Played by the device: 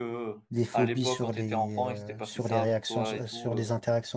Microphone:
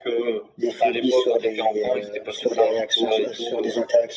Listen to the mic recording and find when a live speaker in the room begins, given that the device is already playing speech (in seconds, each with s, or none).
none